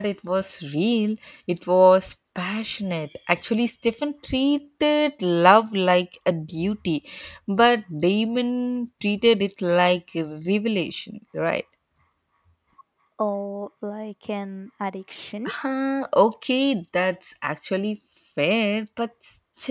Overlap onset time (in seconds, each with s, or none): none